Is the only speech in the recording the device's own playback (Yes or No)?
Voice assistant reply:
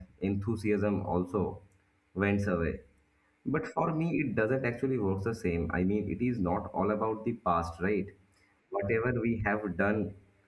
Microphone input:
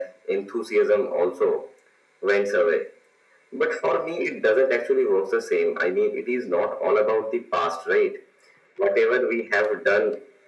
Yes